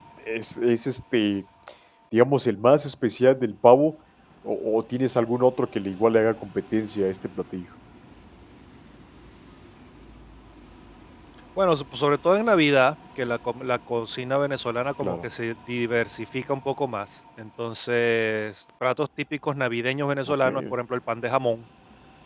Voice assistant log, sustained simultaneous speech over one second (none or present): none